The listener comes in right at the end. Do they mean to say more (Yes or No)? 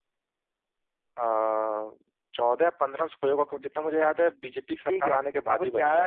Yes